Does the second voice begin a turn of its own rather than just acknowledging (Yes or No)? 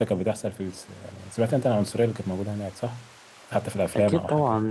Yes